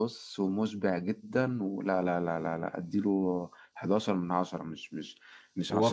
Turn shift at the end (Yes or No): Yes